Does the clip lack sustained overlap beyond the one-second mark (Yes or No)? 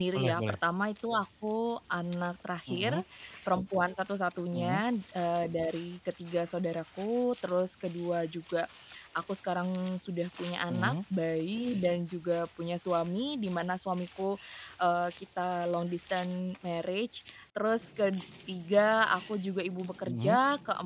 Yes